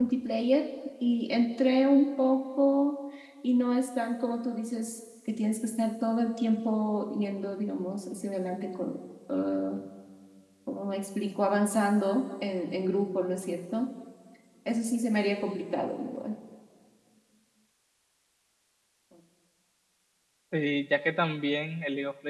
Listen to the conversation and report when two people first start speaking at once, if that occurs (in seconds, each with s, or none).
none